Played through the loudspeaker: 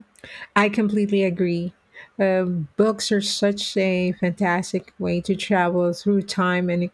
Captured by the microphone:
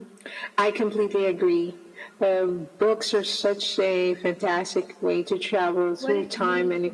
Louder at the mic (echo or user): echo